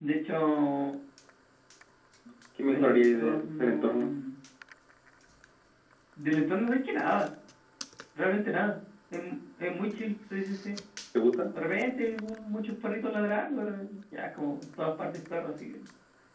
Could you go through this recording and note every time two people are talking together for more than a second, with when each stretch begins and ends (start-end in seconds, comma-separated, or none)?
2.7-4.0